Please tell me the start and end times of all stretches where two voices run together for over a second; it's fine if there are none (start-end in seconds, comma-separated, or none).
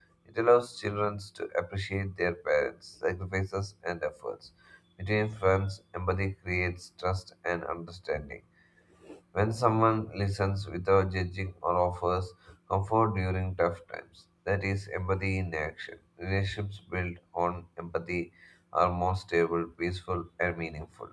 none